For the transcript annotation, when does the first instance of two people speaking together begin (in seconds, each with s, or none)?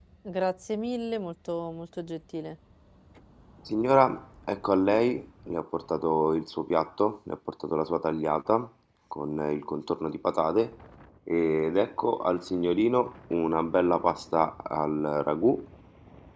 none